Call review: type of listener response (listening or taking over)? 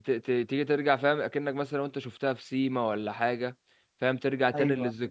listening